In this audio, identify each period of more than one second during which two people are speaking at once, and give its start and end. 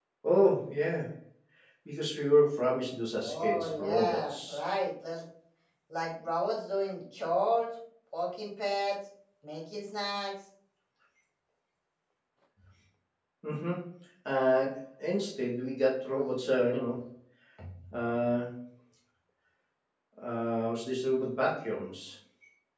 3.2-4.6

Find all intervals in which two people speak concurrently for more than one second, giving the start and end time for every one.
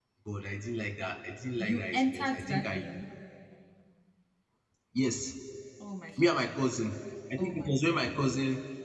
1.6-2.8

